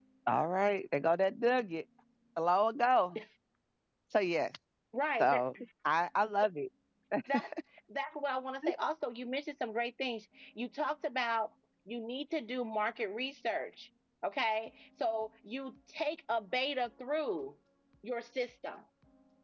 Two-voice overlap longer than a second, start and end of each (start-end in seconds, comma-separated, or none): none